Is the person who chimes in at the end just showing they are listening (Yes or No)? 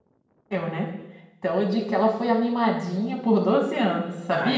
No